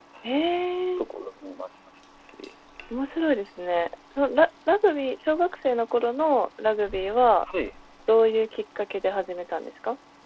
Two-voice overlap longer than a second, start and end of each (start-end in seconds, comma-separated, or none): none